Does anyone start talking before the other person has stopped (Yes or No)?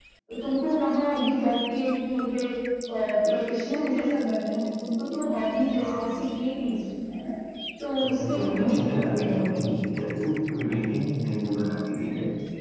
Yes